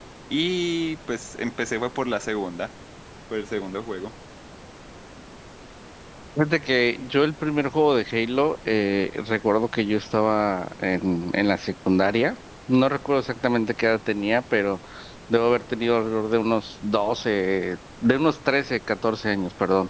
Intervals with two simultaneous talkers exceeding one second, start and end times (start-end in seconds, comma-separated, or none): none